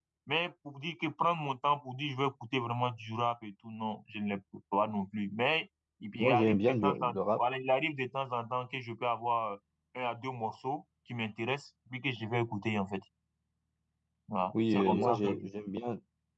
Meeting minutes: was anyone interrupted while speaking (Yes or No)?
Yes